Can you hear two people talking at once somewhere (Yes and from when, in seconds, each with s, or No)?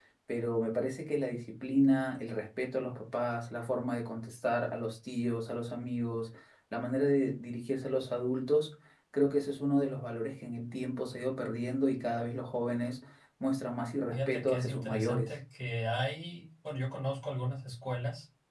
Yes, from 14.1 s